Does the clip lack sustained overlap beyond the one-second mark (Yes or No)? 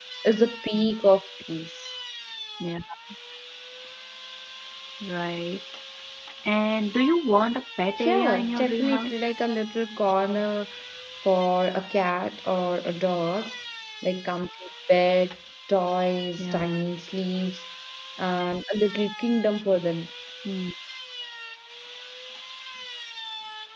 No